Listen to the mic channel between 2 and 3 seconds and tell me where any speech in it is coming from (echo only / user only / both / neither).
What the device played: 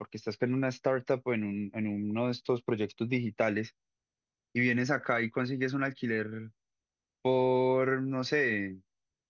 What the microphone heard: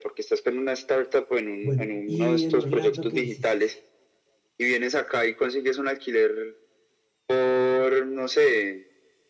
both